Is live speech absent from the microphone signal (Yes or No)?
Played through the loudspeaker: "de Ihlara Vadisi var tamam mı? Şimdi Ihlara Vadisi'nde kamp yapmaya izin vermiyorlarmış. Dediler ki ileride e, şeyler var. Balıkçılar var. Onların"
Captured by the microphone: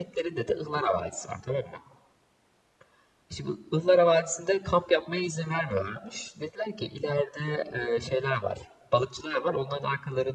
Yes